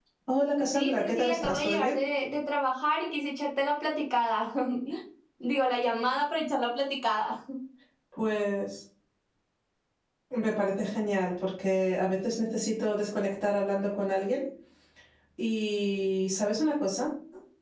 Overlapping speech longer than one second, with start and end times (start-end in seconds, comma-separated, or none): 0.7-2.0